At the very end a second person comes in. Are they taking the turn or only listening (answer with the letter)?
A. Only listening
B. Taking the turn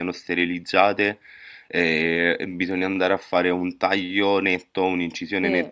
A